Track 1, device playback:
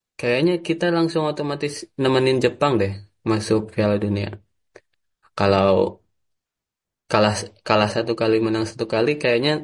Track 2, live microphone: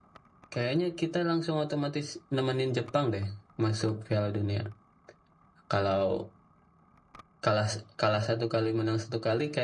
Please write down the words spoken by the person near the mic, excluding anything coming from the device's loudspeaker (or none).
none